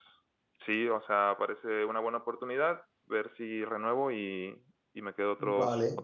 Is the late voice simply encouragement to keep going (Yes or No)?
No